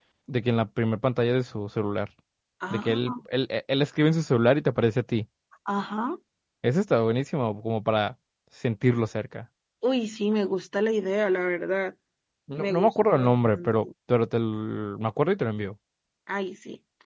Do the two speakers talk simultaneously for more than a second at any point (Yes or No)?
Yes